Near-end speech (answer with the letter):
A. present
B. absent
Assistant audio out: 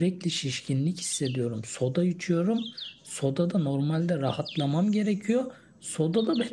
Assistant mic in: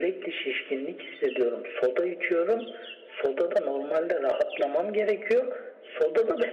B